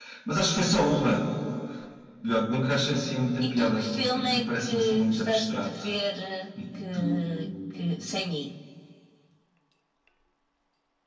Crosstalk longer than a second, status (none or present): present